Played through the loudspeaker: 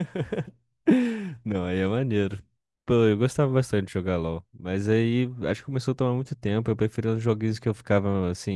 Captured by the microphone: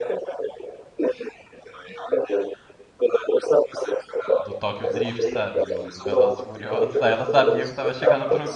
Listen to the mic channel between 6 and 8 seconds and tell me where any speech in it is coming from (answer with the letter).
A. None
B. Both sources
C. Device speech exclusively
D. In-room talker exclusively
B